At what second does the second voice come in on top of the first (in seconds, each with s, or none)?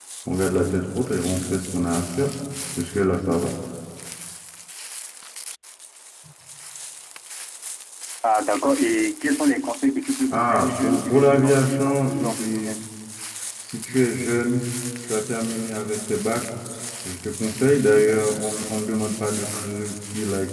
10.3 s